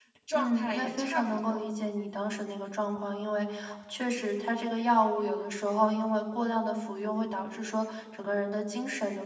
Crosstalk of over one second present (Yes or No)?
Yes